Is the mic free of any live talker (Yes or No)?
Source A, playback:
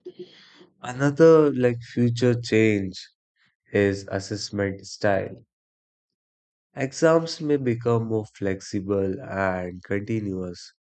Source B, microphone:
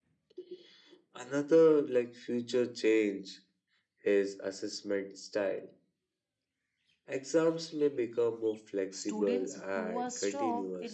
No